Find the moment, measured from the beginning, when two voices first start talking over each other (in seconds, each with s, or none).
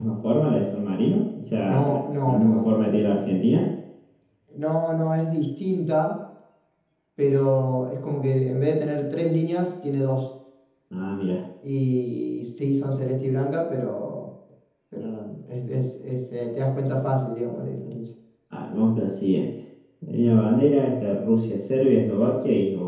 1.7 s